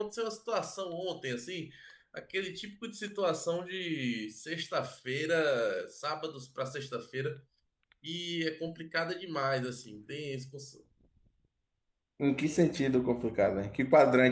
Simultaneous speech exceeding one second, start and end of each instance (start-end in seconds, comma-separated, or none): none